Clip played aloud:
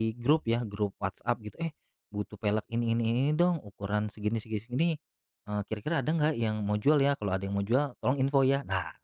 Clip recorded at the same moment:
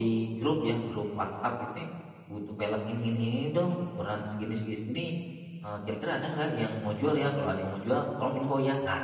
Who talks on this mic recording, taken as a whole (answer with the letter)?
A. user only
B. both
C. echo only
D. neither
C